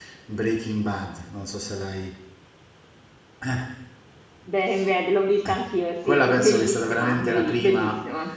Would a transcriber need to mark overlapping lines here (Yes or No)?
Yes